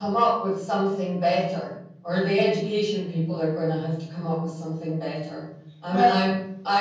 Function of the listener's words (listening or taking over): listening